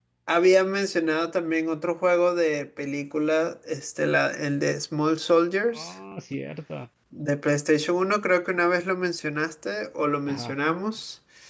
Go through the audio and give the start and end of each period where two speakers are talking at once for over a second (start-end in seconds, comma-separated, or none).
none